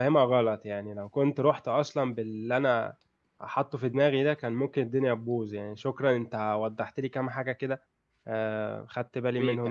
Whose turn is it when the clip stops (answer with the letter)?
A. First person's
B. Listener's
B